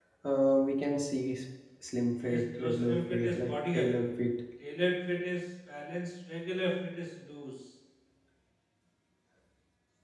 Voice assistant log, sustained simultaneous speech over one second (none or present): present